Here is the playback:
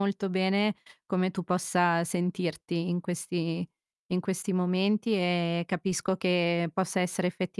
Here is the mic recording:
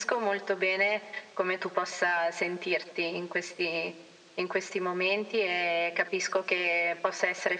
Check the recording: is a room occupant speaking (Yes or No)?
No